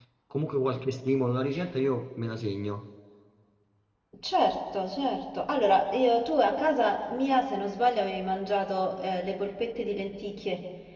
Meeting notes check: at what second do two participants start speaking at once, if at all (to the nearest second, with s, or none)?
none